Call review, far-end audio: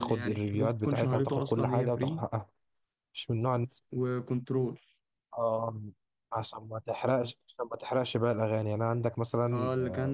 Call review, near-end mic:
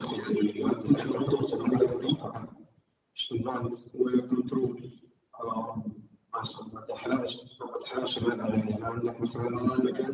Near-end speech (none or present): none